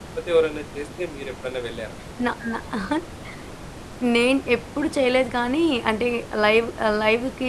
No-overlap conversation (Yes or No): Yes